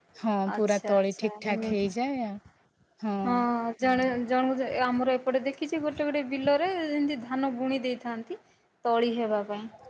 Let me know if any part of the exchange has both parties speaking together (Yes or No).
Yes